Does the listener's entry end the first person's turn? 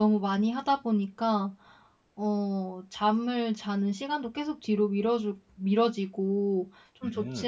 No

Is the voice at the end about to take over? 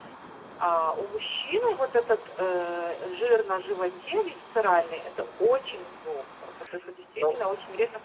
Yes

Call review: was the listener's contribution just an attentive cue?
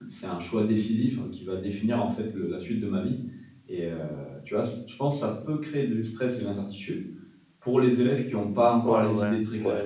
No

